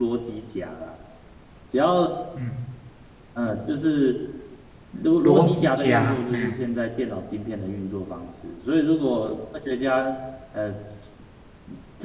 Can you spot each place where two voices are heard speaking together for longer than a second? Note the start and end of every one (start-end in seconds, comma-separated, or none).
5.2-6.6